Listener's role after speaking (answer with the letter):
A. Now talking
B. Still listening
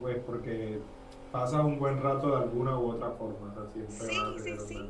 A